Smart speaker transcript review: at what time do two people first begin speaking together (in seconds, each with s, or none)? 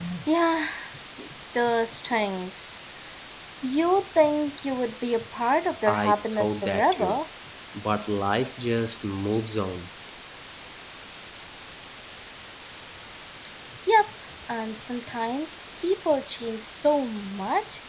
5.9 s